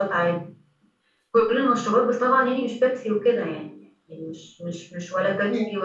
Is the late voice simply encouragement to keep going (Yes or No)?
Yes